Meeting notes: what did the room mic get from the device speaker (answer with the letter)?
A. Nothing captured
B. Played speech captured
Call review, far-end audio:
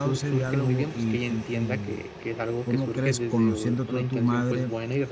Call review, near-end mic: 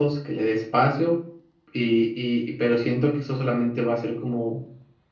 A